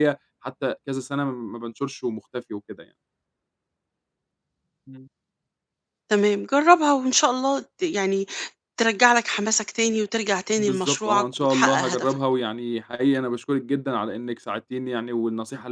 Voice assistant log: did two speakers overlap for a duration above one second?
Yes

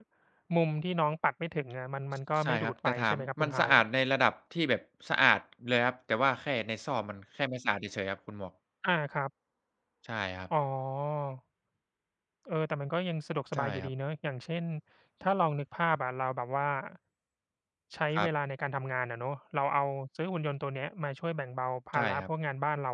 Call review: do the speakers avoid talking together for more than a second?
No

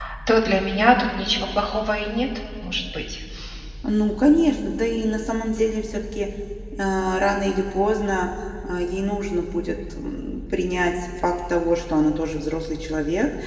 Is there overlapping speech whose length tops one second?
No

